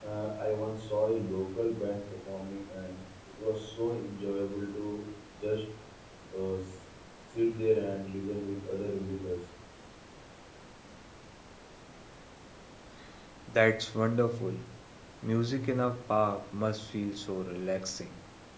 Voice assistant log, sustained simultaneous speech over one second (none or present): none